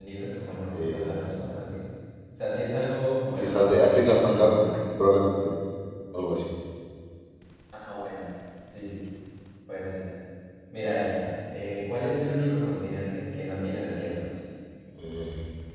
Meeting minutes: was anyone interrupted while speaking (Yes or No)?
Yes